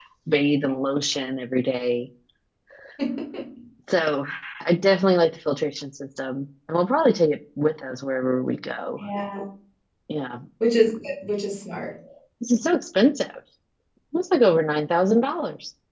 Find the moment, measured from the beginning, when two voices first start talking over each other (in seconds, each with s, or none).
none